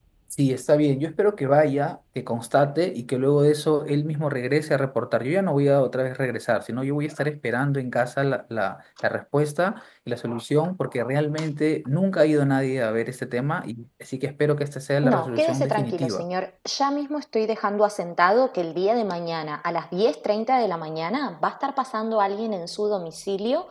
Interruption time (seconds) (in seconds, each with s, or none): 15.0 s